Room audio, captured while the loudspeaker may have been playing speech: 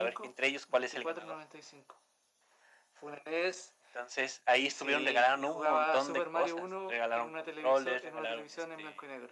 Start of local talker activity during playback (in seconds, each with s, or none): none